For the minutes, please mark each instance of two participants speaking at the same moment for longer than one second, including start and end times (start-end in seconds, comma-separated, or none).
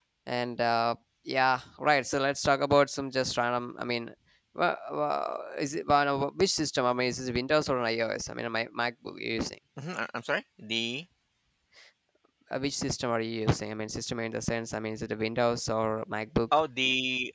none